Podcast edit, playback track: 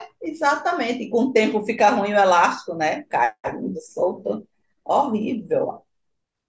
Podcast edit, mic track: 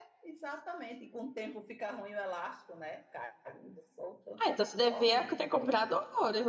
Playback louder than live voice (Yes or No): No